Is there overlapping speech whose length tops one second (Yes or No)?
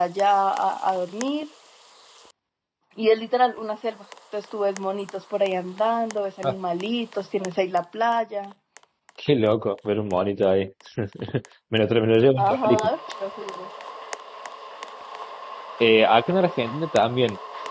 No